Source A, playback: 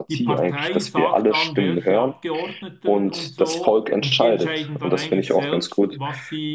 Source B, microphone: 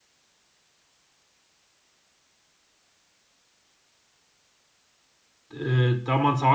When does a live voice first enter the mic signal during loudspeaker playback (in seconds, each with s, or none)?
5.5 s